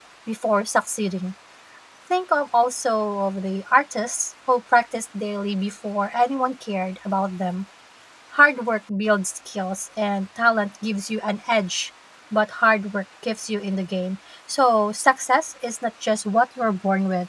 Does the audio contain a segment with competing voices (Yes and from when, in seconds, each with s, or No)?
No